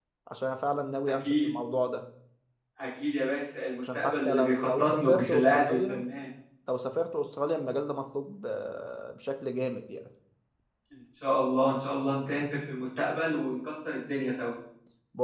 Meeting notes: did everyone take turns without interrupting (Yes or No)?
No